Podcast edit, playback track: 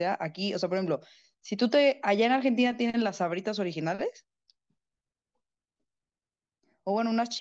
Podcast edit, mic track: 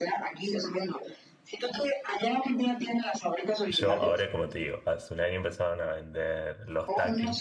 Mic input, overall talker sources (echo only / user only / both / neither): both